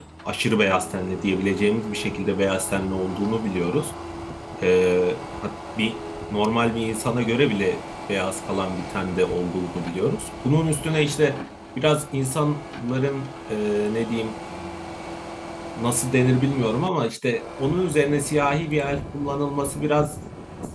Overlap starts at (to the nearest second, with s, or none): none